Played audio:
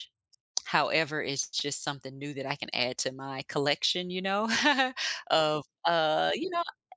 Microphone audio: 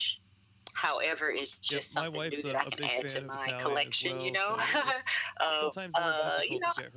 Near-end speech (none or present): present